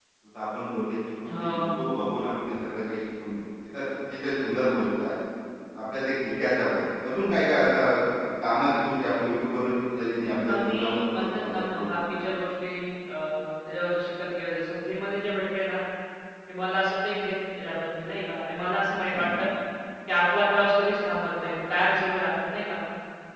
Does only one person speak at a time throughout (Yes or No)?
No